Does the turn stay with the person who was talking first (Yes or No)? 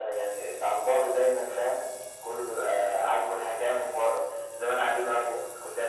Yes